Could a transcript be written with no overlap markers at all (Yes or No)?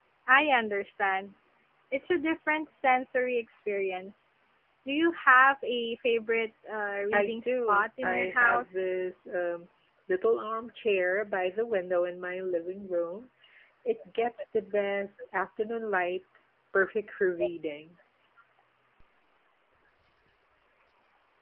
No